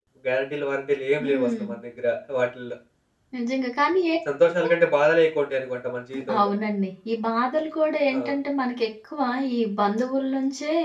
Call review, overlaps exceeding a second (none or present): none